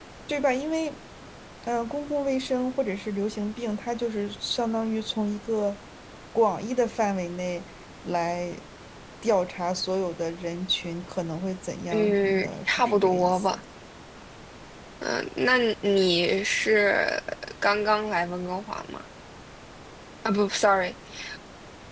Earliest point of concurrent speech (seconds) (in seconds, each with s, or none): 11.9 s